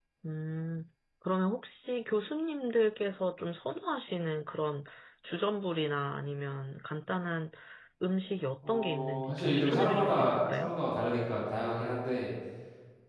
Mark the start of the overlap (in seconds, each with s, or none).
8.6 s